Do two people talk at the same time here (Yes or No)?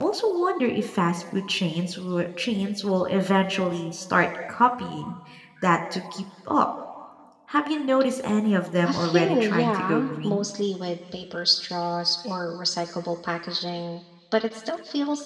Yes